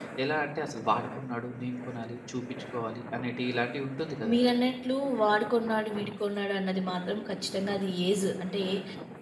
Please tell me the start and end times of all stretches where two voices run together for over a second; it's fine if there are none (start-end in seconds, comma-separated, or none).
none